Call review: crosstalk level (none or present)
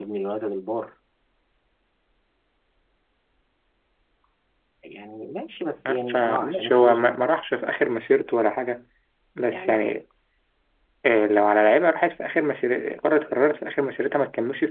present